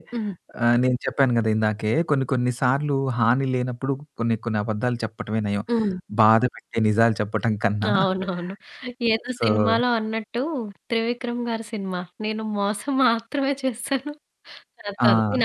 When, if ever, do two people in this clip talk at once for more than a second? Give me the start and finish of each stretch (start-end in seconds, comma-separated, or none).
none